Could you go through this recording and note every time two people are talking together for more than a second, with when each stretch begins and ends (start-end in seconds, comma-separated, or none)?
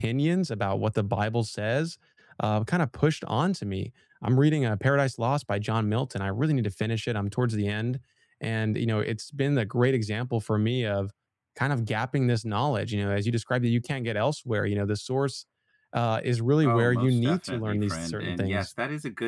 16.6-18.7